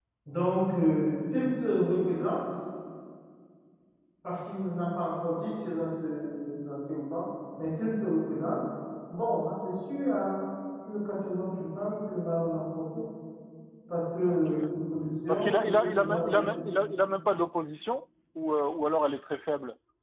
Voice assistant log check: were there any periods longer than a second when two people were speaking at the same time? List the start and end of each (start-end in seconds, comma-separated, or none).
15.3-16.5